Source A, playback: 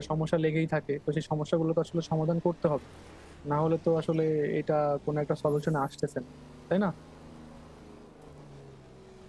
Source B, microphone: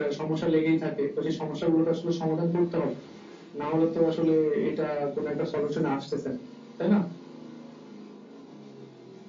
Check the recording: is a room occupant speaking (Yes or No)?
No